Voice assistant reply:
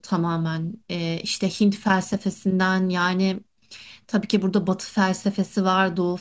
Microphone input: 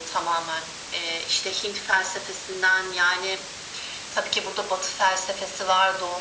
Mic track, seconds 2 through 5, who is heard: echo only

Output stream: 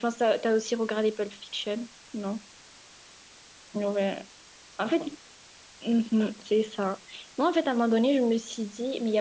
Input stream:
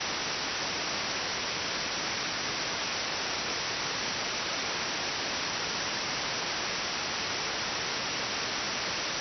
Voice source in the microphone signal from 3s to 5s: neither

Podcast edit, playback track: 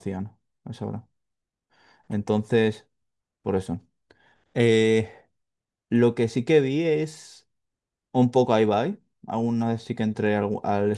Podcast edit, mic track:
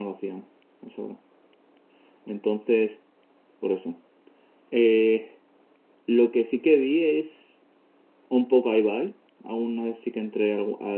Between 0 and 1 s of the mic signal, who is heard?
echo only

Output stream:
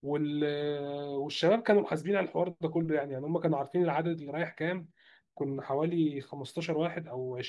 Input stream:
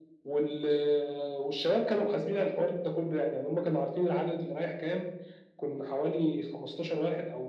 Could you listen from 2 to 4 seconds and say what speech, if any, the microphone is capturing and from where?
echo only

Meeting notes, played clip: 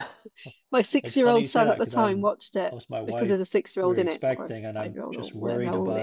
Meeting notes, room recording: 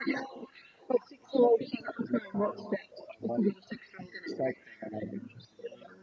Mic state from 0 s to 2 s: echo only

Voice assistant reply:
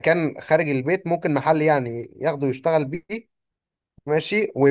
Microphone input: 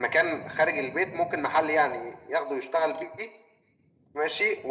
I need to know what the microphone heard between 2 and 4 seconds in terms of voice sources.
echo only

